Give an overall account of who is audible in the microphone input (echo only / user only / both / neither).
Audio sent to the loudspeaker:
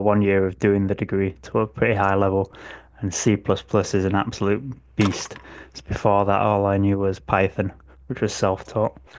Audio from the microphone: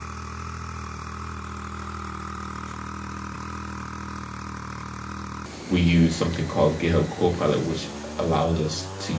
user only